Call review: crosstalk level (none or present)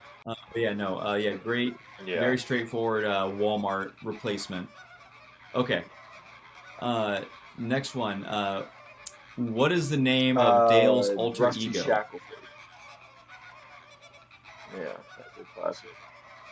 present